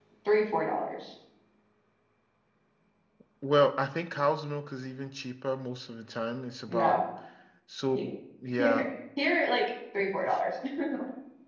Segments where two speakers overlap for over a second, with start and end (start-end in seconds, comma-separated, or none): none